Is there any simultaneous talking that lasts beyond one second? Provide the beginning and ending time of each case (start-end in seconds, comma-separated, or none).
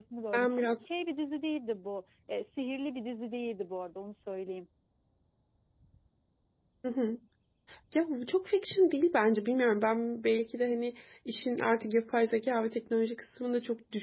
none